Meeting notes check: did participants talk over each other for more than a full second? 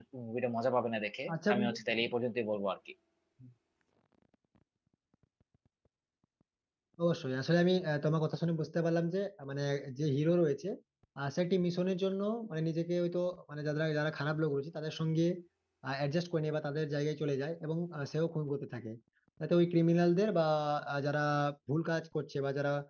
No

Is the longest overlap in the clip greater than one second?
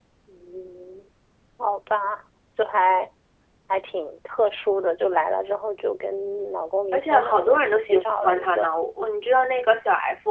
Yes, from 6.9 s

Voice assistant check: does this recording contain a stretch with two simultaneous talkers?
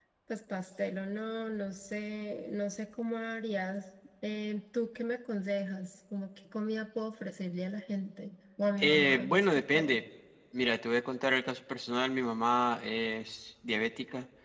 Yes, from 8.8 s

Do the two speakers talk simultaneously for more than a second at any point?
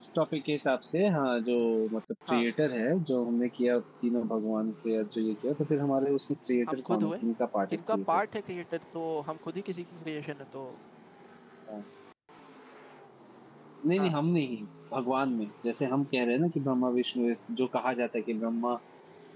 No

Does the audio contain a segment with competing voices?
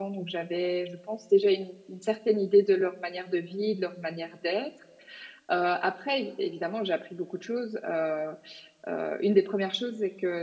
No

